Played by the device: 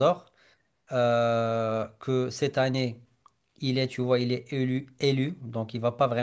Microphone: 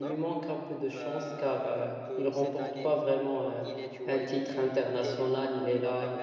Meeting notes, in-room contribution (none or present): present